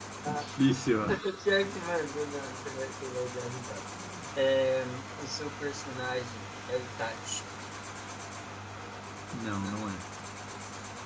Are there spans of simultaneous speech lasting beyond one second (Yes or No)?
No